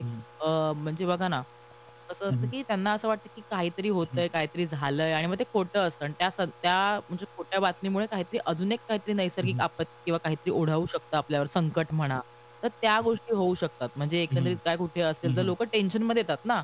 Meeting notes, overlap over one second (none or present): none